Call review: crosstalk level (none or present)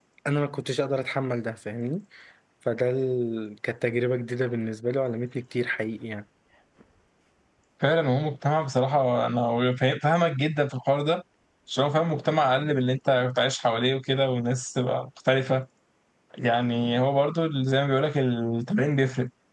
none